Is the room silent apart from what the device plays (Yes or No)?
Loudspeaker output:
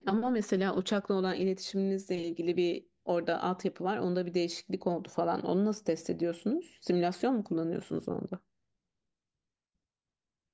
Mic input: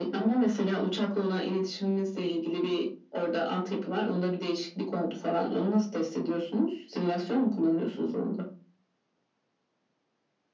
Yes